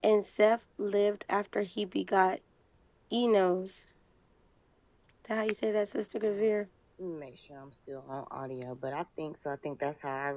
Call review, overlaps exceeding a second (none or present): none